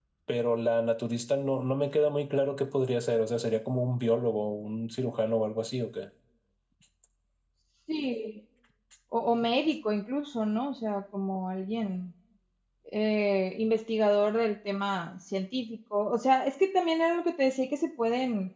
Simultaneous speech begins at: none

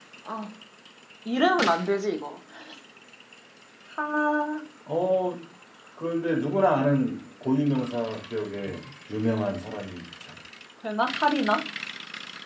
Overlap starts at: none

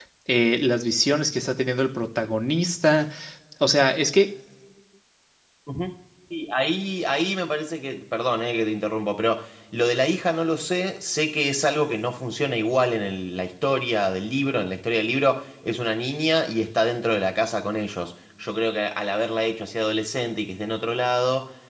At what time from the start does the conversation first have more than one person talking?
none

